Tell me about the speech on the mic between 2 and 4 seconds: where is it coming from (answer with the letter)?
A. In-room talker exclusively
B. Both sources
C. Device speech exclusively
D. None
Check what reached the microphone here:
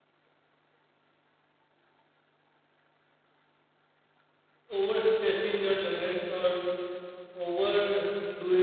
D